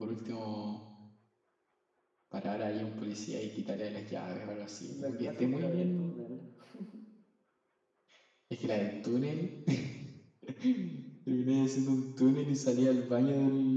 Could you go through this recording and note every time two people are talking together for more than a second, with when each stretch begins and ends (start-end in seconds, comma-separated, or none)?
4.9-6.1